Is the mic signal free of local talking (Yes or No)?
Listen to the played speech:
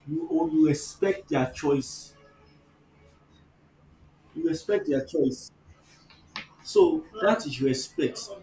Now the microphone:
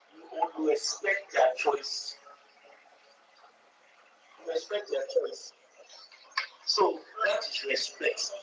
Yes